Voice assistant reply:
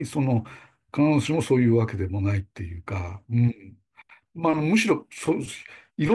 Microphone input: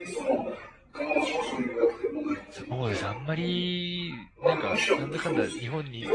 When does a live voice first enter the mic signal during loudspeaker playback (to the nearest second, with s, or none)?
3 s